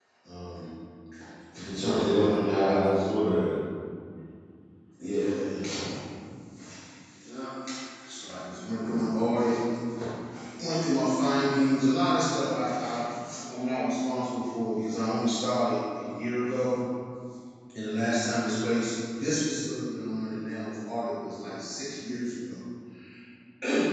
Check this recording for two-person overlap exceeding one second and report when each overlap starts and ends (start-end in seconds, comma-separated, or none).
1.8-3.3